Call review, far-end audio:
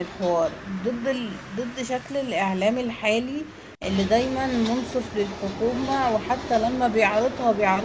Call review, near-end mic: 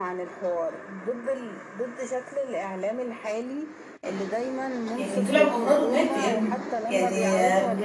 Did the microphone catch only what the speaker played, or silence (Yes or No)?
No